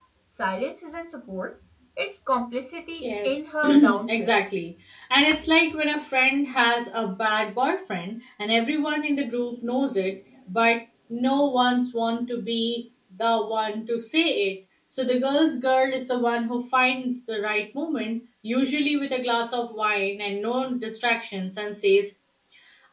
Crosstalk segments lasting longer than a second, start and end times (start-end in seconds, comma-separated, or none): 3.0-4.3